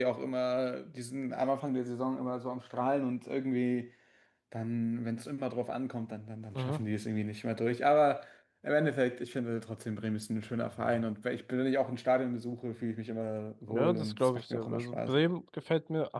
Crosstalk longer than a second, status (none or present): present